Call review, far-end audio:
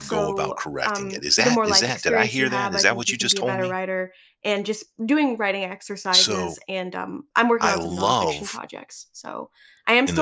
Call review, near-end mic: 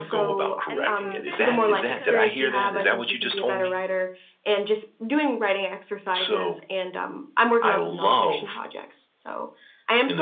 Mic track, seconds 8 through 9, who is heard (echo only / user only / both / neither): echo only